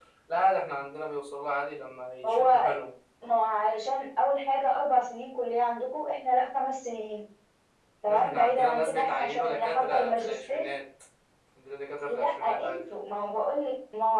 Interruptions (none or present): present